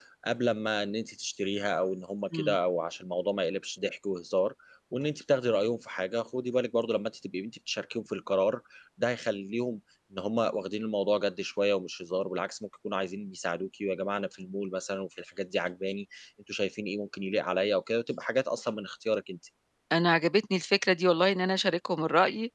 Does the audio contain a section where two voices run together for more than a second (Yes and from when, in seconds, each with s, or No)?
No